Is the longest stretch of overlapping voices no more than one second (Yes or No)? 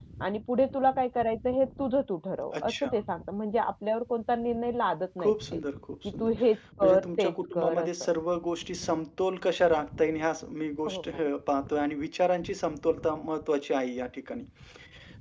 No